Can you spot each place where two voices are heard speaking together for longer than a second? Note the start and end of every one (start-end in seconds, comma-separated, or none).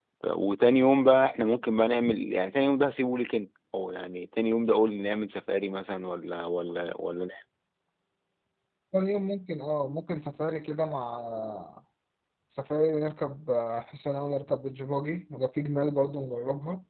none